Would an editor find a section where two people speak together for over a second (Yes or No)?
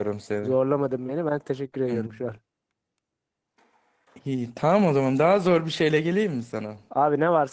No